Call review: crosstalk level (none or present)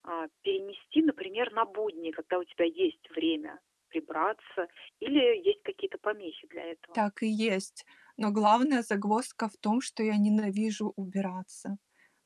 none